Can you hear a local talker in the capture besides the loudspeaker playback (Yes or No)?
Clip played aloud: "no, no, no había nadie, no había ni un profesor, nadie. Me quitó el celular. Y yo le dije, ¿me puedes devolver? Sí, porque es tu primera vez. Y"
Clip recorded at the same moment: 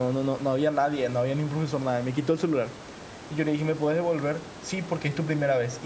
No